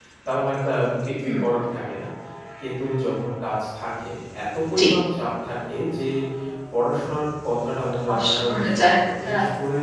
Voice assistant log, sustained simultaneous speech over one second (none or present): present